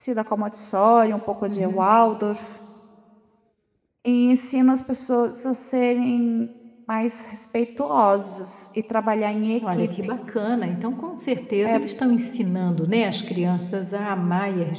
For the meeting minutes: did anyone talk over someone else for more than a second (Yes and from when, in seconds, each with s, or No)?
No